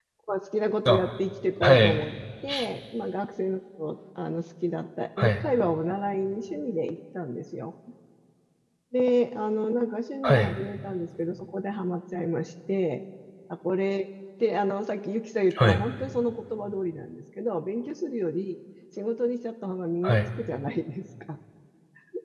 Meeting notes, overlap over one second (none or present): none